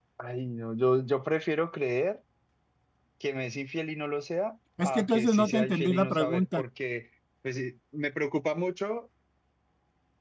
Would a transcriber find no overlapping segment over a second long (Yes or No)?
No